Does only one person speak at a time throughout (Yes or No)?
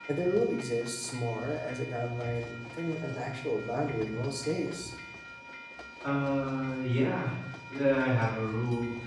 Yes